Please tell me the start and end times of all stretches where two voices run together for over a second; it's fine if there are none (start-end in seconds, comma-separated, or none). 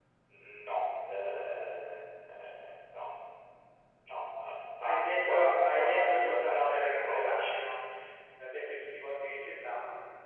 5.5-7.7